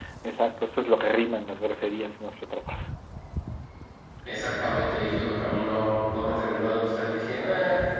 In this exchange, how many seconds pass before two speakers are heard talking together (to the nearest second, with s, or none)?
none